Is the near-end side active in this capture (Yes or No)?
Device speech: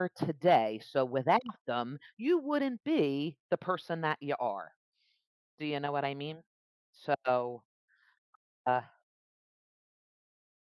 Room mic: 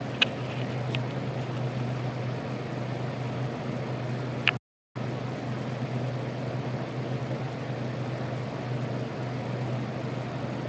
No